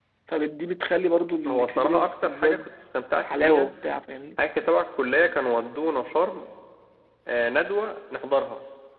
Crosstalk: present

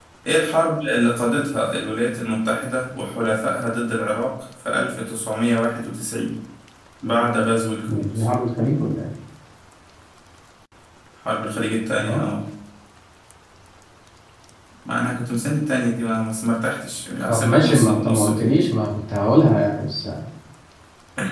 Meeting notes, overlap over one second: present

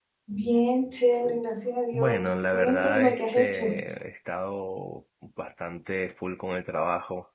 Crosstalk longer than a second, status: present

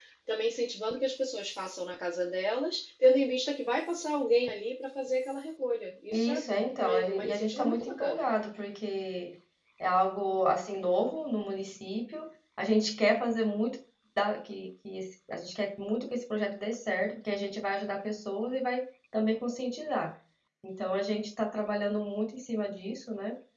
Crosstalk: present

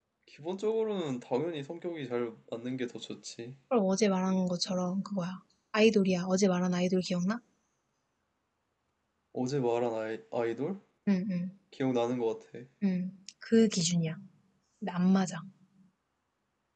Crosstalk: none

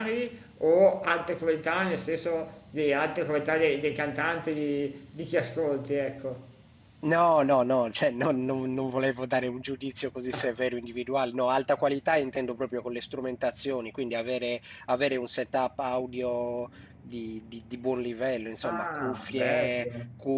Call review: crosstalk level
present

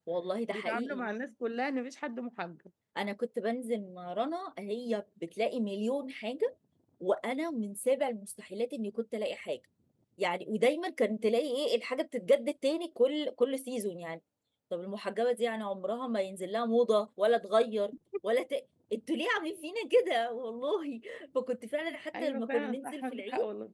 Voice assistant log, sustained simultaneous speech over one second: present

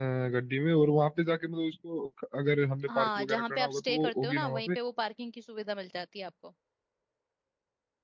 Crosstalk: present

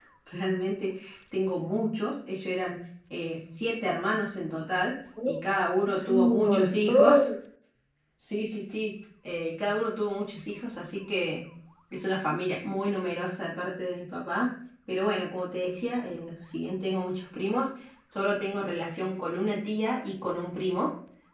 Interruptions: present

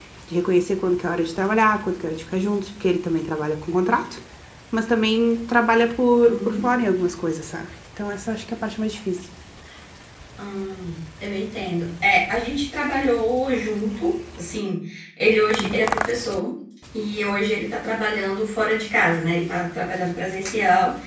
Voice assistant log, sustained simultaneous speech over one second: none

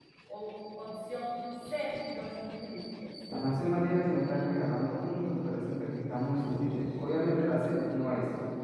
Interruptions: none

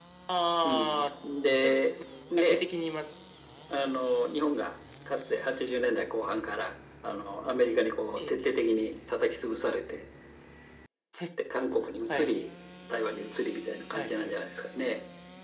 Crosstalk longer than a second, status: none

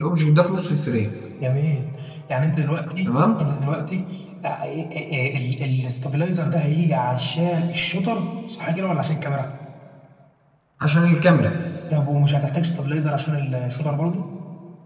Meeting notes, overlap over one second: none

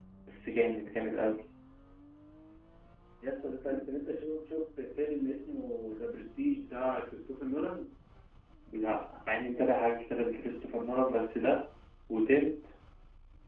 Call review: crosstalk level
none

